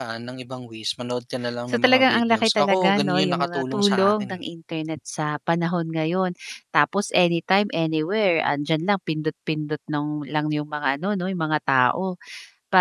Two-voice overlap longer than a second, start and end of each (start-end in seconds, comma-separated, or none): 1.7-4.4